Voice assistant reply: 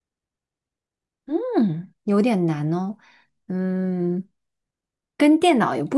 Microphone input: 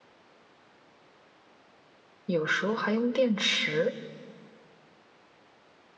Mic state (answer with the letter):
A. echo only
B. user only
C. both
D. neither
B